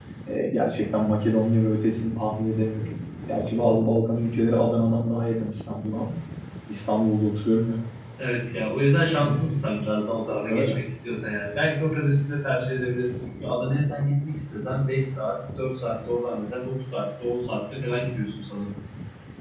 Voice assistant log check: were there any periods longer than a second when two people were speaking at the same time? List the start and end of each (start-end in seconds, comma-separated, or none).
none